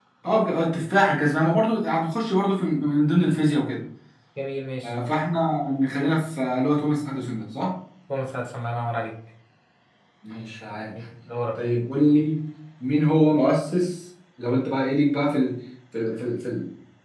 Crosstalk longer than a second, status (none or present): none